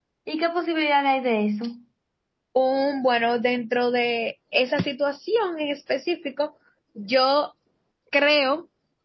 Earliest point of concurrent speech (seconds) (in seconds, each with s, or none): none